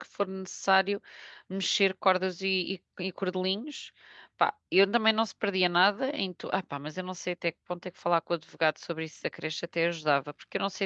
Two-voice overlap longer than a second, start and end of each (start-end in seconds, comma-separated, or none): none